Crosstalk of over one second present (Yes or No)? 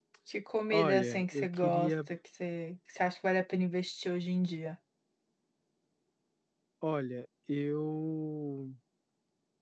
Yes